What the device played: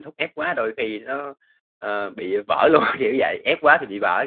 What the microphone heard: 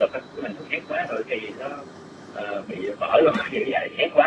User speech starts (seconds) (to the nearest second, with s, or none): none